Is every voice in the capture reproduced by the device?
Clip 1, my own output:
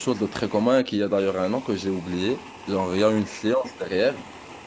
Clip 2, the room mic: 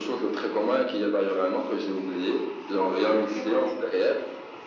No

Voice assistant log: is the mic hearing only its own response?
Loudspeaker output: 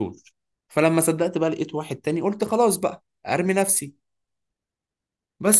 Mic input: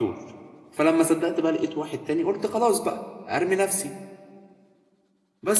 Yes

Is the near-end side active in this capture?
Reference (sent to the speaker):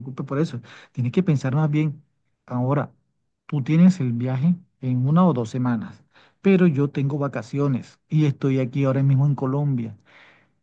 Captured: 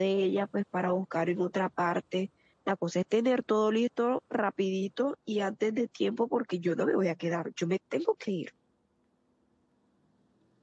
Yes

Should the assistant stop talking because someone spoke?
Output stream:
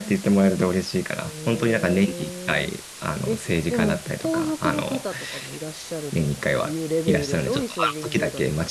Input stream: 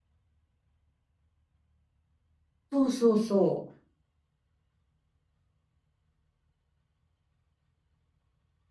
Yes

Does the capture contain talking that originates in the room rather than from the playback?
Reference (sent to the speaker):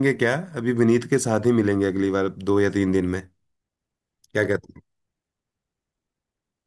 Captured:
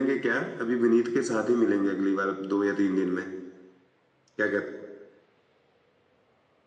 No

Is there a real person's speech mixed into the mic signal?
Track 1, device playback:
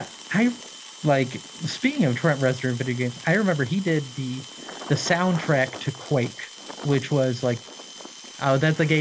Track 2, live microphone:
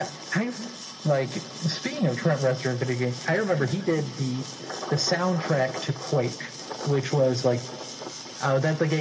No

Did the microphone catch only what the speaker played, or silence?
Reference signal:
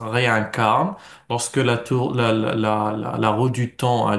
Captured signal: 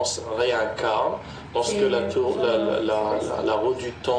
No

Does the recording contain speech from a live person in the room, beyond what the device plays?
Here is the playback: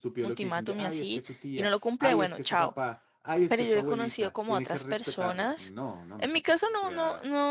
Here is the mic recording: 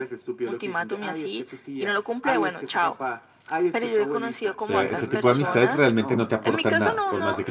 Yes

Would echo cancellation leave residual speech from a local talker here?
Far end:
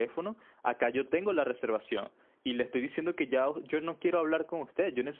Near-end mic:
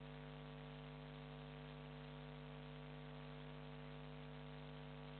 No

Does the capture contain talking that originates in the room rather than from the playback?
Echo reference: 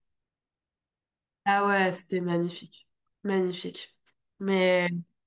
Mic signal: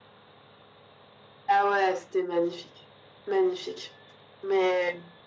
No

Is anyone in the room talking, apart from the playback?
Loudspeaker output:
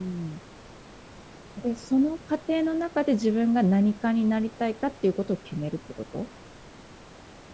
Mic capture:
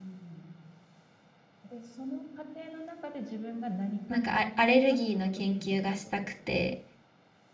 Yes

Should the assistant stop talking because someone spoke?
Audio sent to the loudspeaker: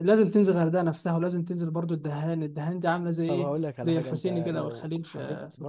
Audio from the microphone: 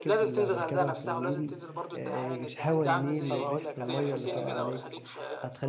Yes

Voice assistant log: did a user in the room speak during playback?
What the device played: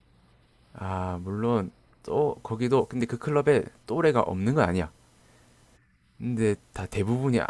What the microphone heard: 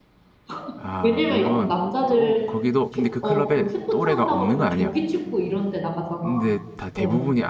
Yes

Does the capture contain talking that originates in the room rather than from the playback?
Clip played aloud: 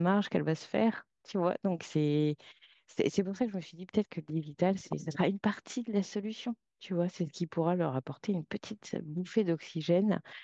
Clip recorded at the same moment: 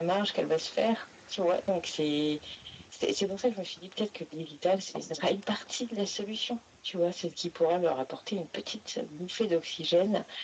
No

